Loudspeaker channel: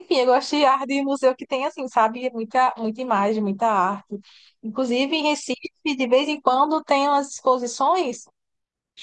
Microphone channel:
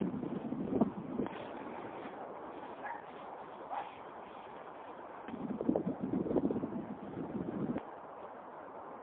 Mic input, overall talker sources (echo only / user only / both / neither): neither